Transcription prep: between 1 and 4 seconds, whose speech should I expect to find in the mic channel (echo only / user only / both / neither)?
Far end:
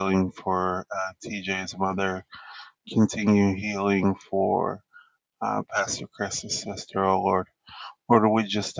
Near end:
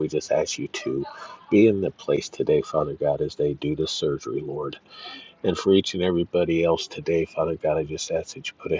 user only